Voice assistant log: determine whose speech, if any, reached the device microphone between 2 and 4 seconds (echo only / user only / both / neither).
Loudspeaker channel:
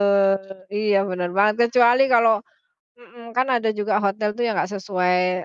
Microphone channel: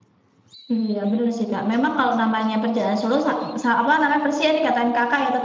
user only